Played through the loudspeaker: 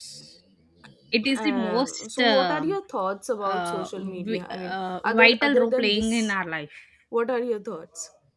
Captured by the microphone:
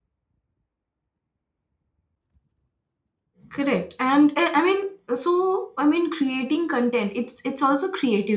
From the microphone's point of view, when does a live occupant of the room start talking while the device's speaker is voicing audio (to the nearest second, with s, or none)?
3 s